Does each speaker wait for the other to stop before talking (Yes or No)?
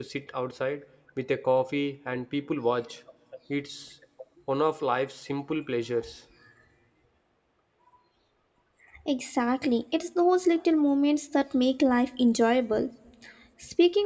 Yes